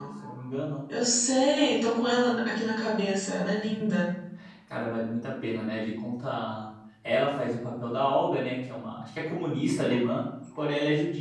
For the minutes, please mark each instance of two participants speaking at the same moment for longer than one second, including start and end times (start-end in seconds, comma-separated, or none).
none